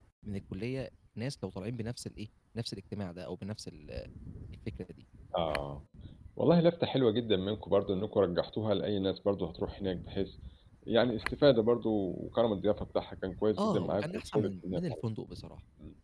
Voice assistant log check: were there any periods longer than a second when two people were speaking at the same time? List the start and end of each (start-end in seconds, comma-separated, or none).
13.6-14.9